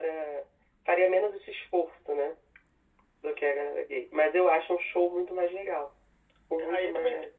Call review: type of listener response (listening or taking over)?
taking over